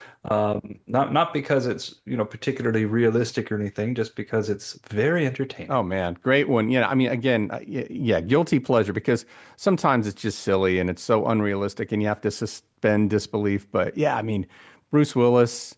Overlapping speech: No

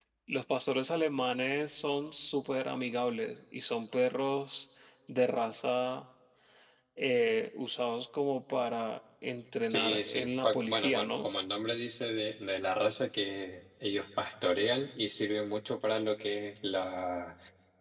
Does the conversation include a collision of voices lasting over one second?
Yes, from 9.7 s

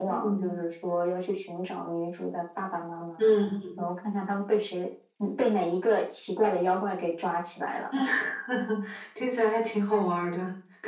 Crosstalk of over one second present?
No

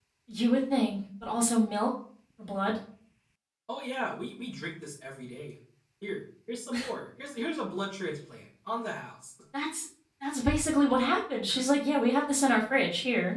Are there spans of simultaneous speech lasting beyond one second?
No

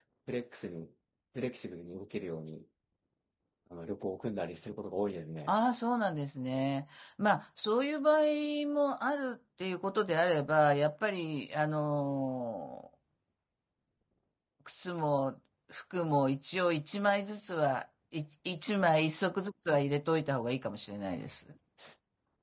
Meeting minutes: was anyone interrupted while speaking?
No

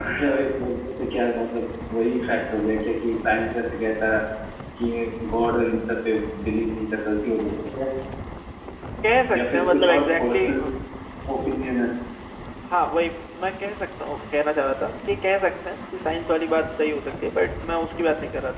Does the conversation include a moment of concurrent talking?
Yes, from 9.3 s

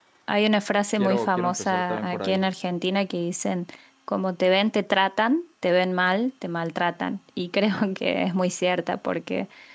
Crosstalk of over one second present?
Yes, from 1.0 s

